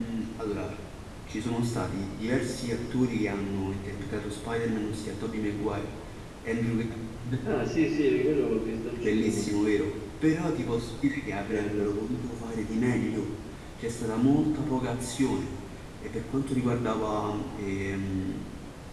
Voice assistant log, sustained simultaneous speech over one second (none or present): none